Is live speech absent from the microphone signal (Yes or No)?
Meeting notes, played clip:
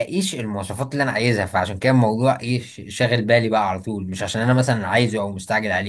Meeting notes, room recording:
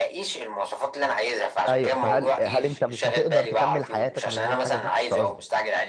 No